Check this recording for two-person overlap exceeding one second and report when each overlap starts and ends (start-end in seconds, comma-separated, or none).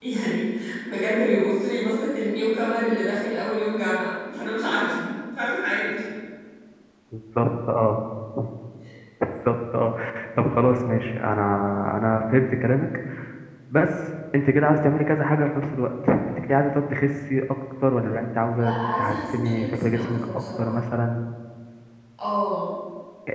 18.6-20.9